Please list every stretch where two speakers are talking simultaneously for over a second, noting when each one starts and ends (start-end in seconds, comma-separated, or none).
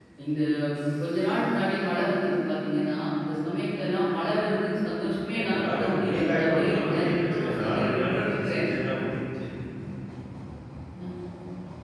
5.3-8.6